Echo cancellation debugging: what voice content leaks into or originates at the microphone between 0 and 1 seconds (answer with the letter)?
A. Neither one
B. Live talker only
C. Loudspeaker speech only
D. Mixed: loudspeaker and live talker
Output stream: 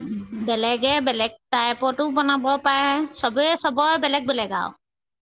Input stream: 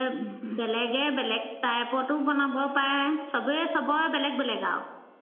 C